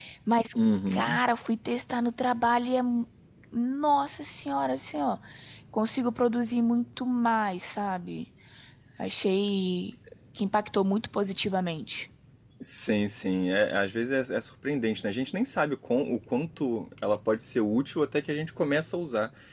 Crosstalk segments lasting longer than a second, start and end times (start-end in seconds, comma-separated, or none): none